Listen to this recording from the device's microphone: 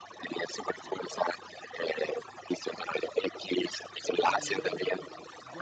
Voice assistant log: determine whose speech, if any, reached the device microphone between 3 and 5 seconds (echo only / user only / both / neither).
both